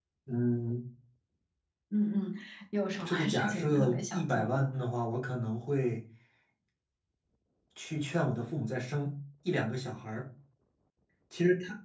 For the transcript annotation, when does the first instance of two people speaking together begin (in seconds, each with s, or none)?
3.0 s